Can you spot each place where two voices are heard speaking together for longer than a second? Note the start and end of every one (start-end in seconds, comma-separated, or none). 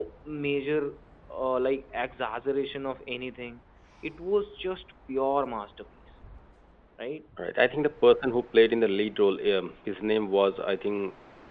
none